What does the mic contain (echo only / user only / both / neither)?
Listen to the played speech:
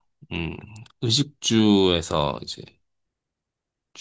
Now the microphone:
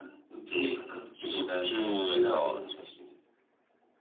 both